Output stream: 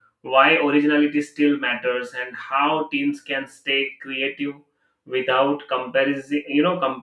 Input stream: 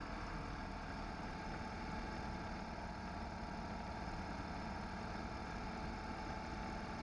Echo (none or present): none